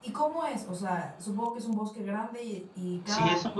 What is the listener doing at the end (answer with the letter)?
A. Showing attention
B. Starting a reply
B